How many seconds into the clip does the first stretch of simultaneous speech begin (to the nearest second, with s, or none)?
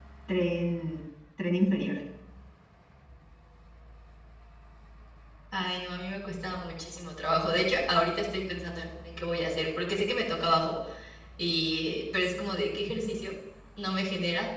none